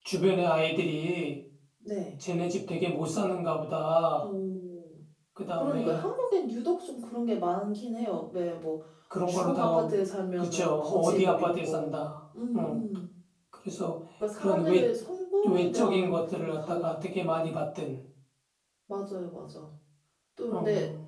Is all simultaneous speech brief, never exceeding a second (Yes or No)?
No